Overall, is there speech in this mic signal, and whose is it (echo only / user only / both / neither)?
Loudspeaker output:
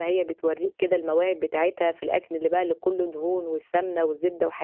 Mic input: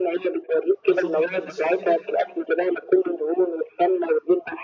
both